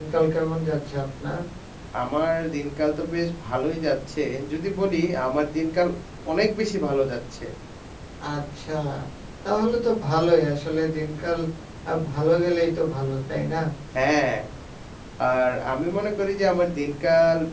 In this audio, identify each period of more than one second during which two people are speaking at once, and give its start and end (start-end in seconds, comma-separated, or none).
none